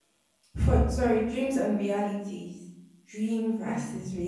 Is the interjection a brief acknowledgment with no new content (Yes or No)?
Yes